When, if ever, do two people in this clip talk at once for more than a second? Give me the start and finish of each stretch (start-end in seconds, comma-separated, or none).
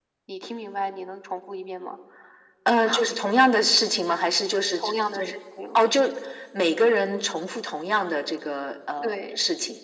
none